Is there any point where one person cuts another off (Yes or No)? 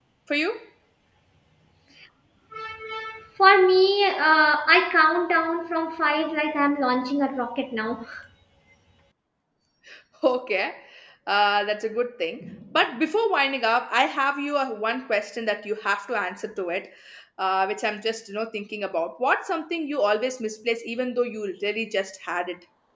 No